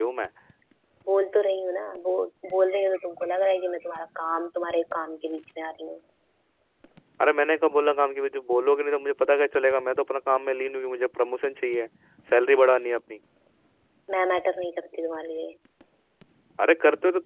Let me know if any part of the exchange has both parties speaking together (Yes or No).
No